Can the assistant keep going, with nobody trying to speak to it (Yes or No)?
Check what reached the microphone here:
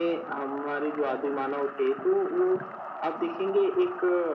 Yes